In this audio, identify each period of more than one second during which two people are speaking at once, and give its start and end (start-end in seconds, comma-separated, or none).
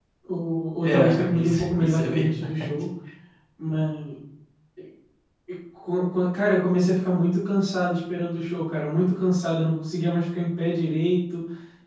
0.8-2.7